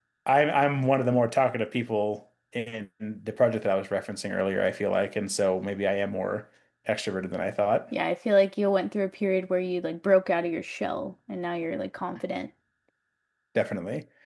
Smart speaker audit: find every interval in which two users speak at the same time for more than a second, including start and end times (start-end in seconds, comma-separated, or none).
none